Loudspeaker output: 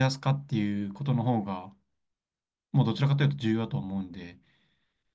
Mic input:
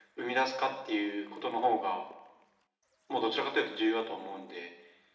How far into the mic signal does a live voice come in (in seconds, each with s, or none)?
none